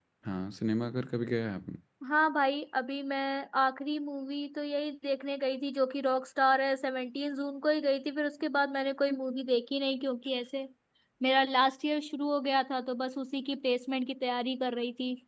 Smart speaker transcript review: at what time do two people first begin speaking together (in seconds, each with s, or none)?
none